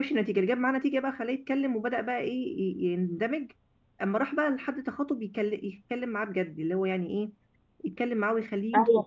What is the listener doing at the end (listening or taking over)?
taking over